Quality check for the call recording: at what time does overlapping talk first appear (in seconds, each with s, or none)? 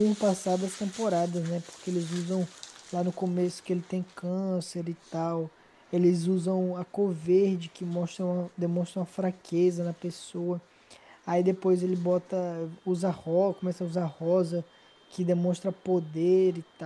none